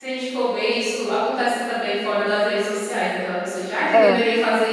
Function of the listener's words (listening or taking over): listening